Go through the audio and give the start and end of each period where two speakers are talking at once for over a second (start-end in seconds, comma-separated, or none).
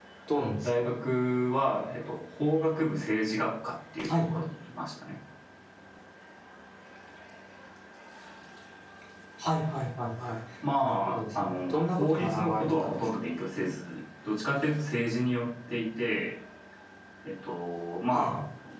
10.8-13.1